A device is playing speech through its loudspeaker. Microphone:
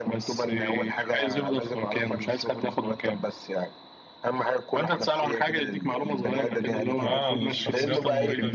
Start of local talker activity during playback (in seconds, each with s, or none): 7.0 s